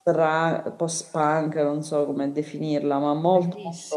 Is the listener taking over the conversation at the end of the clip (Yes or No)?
No